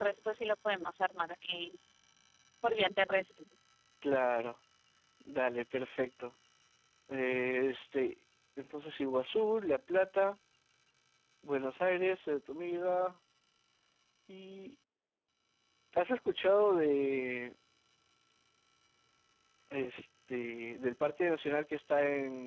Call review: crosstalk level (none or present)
none